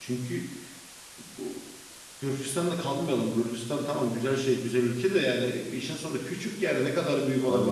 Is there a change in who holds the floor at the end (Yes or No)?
Yes